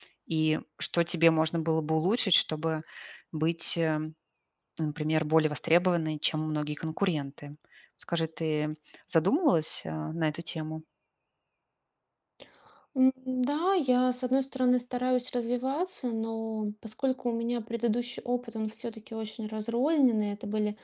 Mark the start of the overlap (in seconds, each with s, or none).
none